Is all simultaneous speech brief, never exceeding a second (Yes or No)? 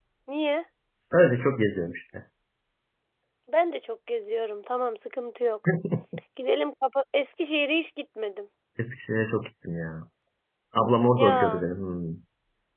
Yes